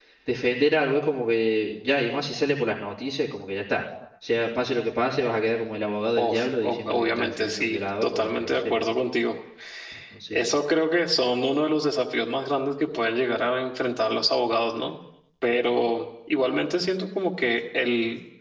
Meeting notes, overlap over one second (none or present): present